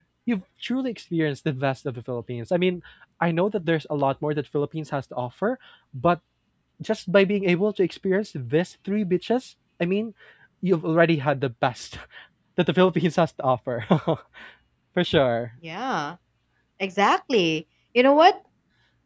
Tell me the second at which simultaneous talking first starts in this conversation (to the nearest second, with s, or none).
none